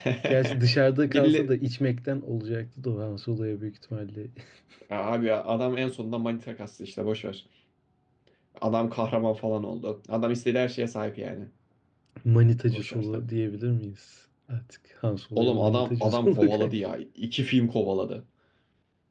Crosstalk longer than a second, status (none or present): present